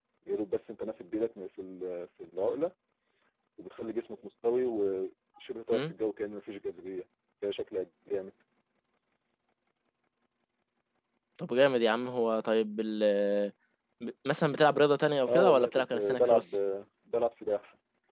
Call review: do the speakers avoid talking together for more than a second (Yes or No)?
No